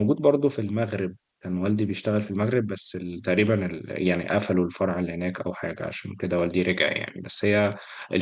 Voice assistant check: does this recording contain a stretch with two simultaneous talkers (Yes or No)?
No